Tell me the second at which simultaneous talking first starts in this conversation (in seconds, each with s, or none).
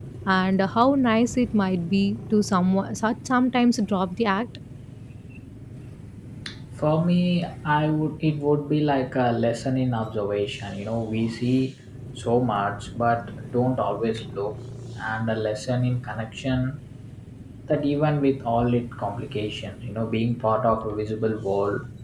none